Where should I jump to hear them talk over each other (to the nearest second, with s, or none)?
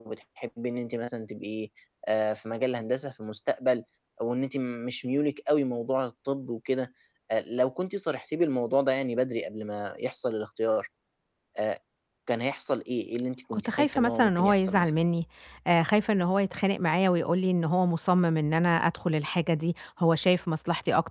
14 s